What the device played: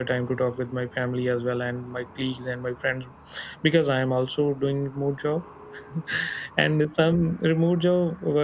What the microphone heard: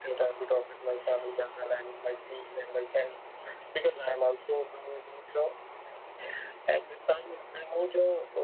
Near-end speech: none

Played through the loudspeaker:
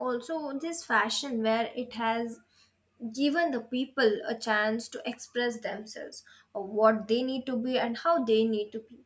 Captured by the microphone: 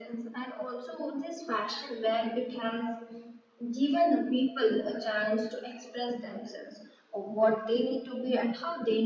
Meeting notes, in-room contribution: none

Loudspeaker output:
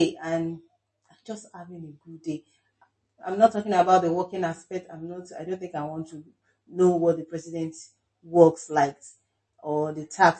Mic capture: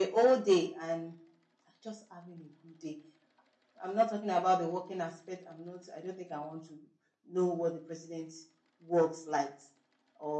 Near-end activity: none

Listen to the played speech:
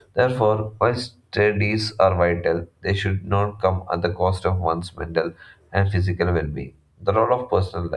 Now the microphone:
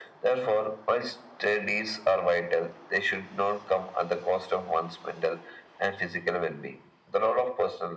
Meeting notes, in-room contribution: none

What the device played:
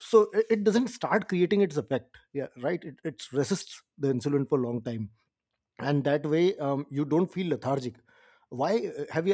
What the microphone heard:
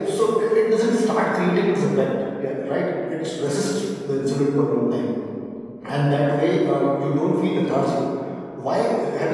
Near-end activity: none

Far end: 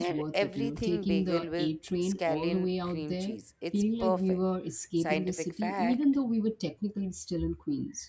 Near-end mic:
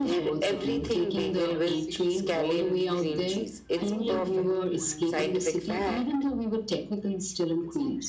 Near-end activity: present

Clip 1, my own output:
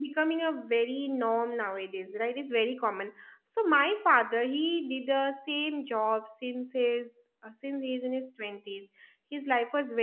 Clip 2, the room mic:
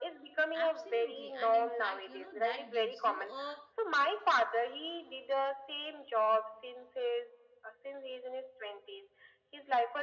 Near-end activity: present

